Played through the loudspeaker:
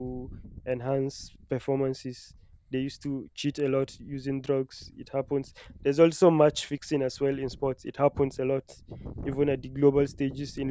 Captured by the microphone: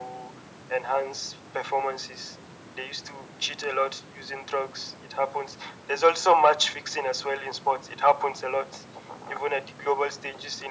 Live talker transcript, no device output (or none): none